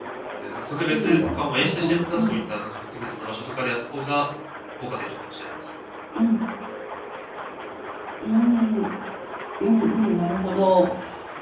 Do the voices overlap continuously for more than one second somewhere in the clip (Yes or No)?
Yes